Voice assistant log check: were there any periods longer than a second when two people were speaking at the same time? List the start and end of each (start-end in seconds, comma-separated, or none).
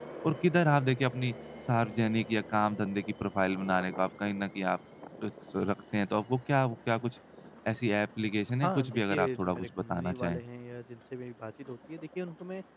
8.6-10.4